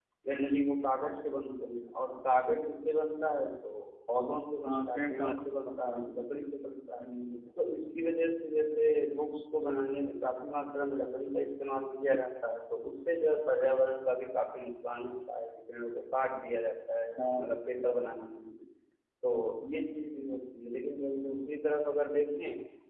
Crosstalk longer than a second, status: present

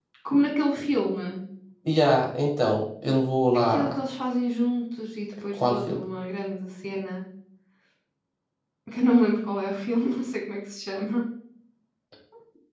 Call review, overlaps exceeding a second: none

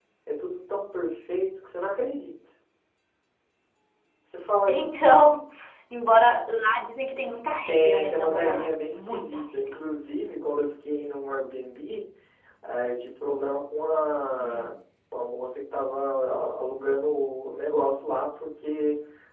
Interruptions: present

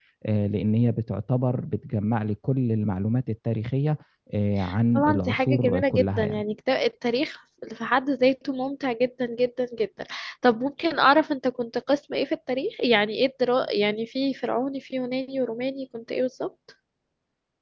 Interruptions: present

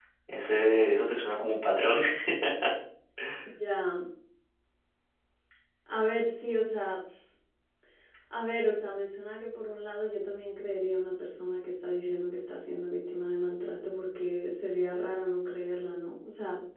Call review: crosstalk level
none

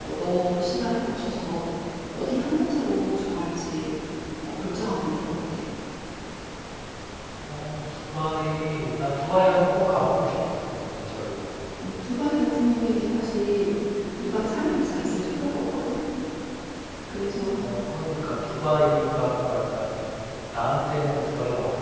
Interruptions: none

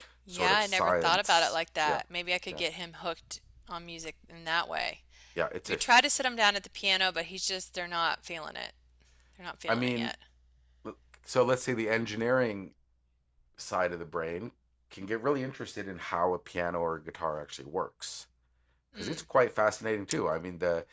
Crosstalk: present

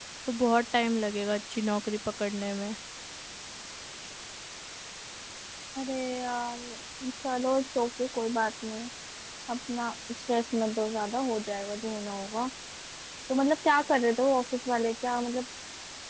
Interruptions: none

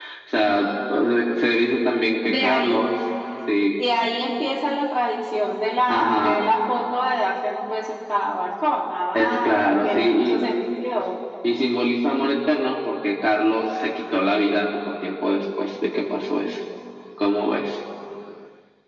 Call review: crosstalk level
present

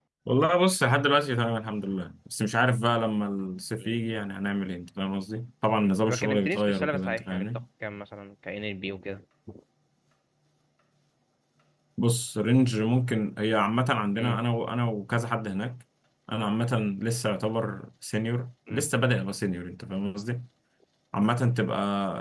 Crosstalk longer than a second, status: present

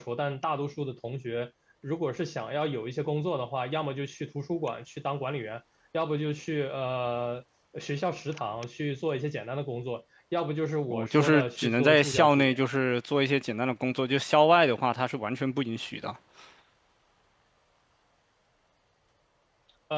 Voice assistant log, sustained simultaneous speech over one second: present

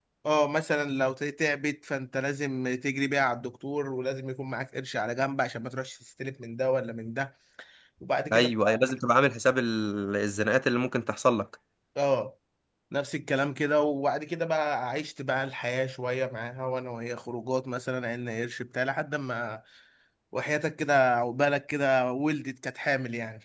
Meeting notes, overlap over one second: none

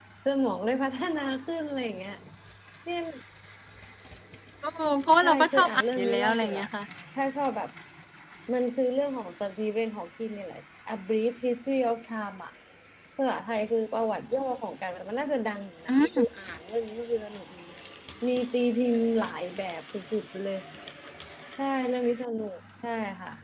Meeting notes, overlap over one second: present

